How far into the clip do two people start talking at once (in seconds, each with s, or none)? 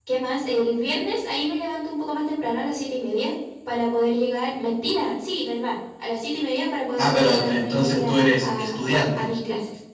7.0 s